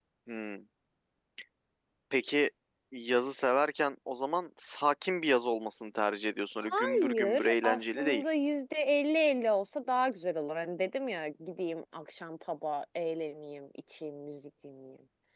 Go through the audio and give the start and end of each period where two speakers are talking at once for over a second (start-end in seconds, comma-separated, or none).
6.6-8.2